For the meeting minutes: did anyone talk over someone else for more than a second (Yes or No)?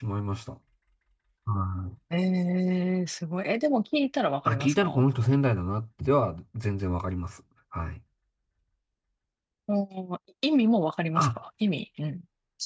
No